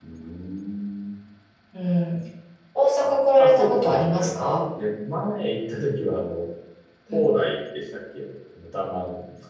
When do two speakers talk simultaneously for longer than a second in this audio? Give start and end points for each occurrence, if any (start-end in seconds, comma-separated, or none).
3.4-4.6